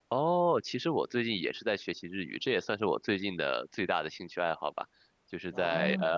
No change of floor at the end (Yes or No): Yes